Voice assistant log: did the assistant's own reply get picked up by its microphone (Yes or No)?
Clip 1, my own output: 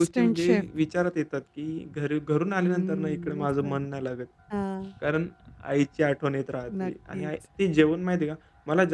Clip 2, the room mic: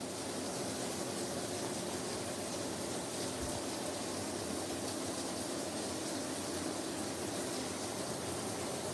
No